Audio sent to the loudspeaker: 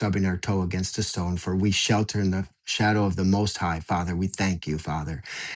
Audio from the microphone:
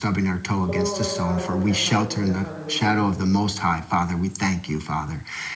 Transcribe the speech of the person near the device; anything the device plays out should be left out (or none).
Glory, hallelujah, hallelujah, hallelujah.